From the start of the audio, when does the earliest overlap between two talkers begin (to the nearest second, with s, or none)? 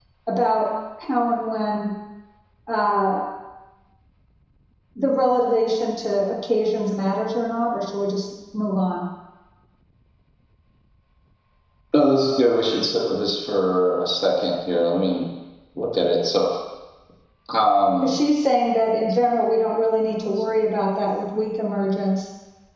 none